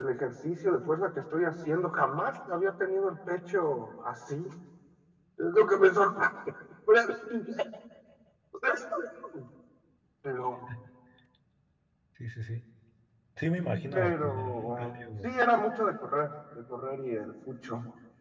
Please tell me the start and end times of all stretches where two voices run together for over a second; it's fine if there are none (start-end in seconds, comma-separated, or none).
13.9-15.3